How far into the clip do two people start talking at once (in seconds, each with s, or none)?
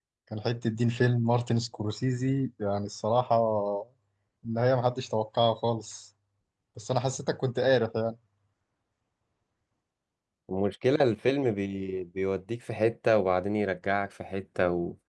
none